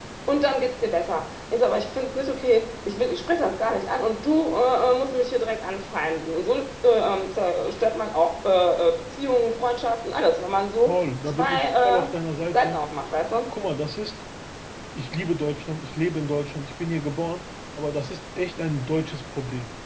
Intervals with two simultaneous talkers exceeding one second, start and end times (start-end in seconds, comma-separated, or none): 10.9-12.1